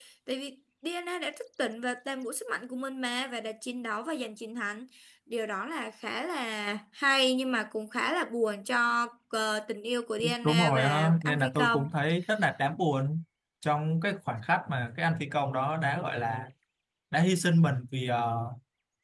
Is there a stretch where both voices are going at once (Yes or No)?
Yes